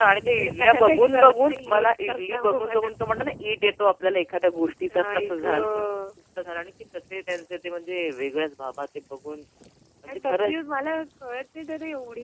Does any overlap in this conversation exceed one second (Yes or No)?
Yes